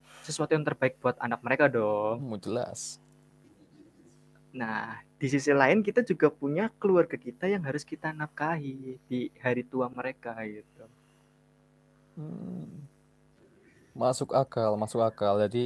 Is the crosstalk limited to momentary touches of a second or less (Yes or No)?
Yes